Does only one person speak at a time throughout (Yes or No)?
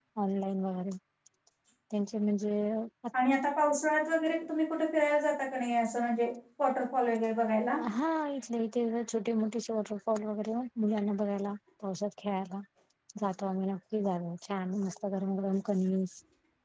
Yes